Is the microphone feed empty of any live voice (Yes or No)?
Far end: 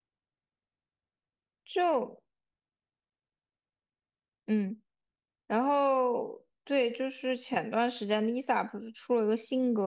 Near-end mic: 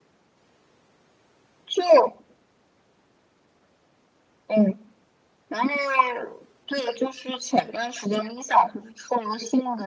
Yes